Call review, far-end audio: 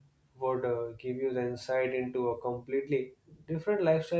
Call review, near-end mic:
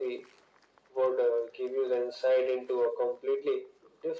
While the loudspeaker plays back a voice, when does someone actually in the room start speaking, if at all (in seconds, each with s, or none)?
none